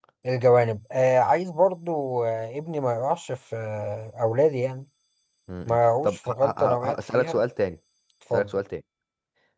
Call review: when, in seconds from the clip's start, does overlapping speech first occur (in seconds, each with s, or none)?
5.7 s